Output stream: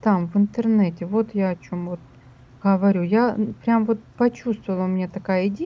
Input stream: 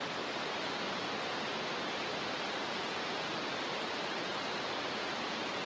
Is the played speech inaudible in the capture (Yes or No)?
Yes